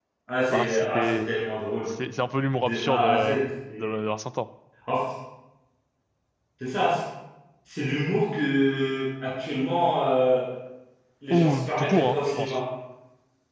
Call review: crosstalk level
present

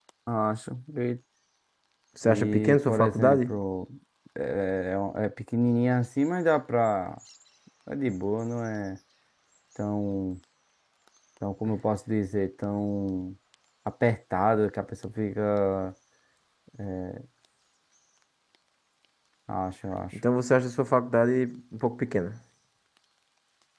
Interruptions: present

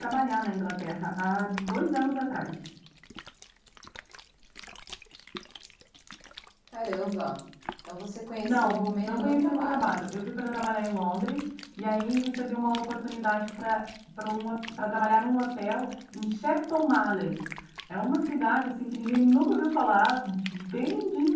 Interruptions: present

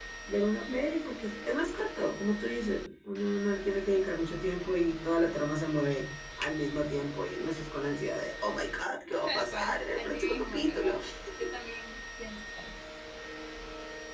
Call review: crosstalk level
present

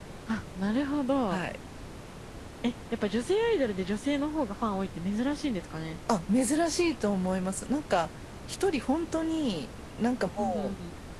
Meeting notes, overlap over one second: none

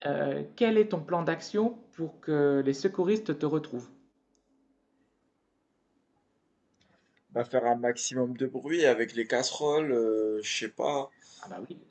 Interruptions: none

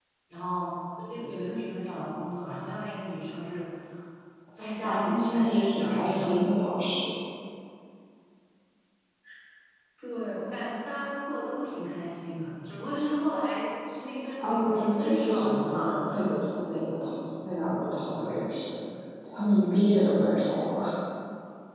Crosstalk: present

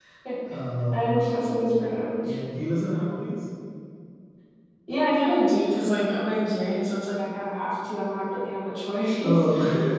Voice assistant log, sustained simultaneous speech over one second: none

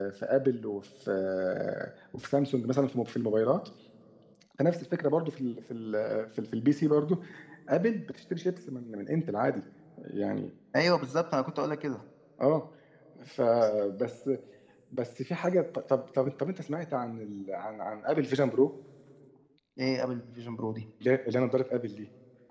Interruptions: none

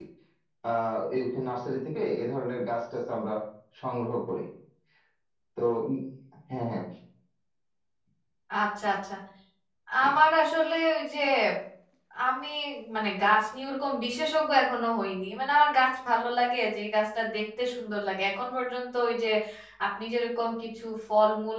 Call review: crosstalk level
none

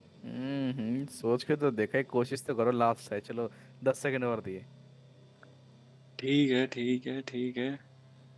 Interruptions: none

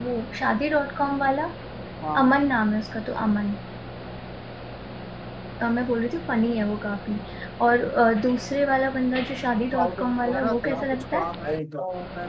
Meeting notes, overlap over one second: present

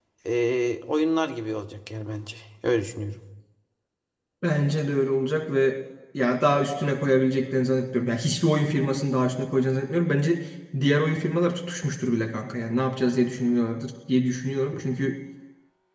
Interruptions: none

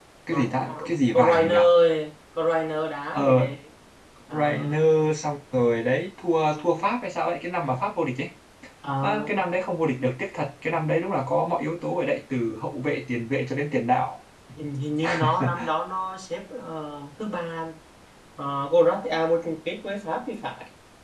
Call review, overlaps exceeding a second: present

